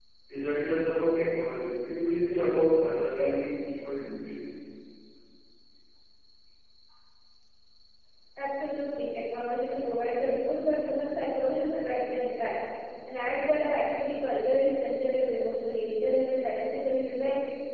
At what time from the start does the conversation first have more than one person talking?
none

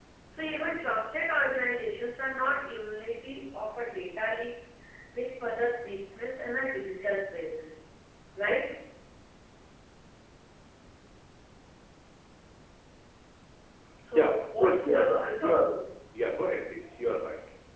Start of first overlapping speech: 14.2 s

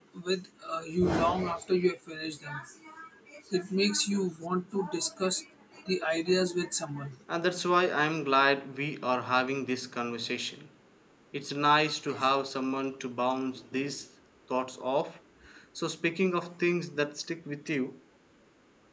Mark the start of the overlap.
none

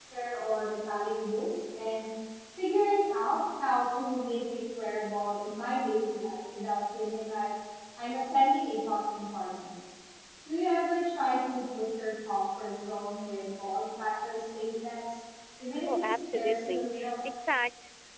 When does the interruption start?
15.9 s

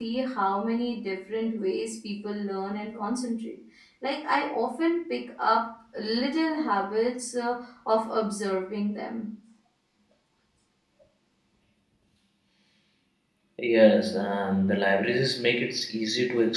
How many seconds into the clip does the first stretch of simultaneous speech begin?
none

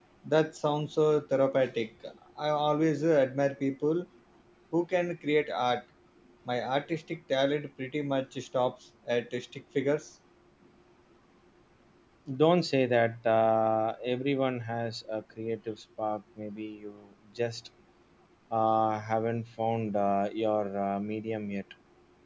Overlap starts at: none

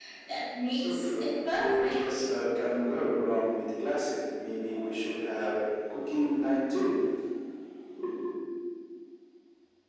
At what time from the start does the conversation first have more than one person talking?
0.7 s

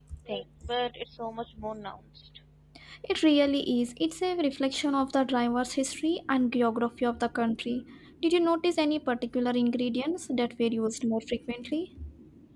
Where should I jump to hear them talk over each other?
none

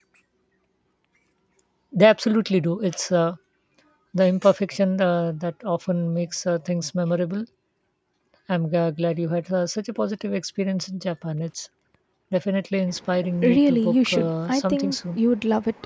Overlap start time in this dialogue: 13.2 s

